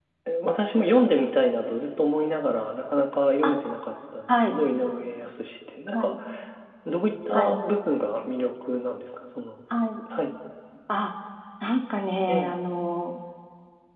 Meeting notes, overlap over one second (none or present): none